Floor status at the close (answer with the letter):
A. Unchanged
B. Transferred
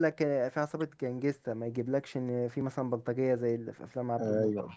B